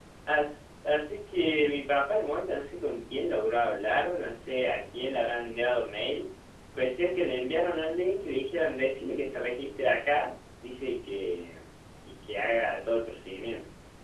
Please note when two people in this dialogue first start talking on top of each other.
none

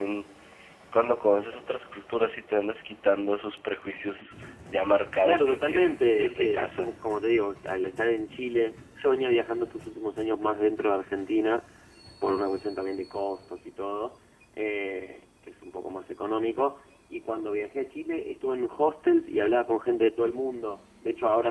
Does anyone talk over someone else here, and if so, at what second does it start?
5.2 s

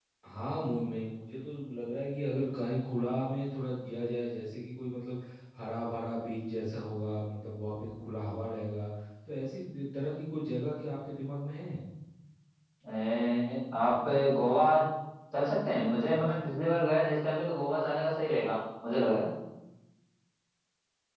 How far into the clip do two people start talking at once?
none

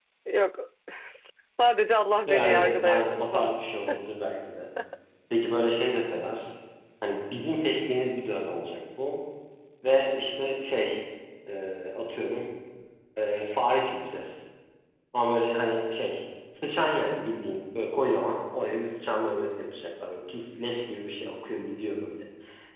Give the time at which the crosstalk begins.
2.2 s

